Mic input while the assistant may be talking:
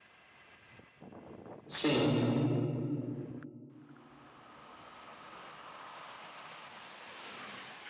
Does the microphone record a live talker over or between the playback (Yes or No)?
Yes